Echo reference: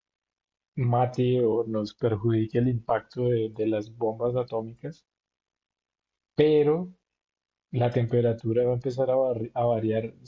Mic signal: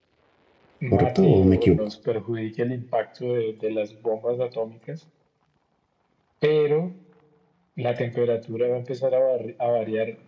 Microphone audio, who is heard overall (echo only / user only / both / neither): both